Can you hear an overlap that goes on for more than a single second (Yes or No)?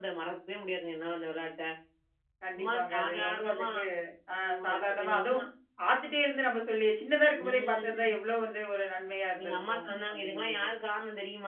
Yes